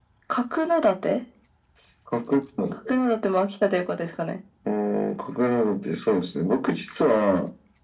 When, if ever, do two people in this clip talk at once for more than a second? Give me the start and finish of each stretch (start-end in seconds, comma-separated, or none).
none